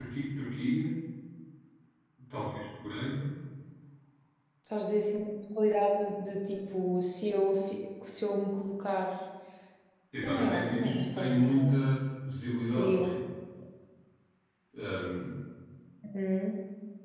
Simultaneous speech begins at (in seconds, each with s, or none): 10.2 s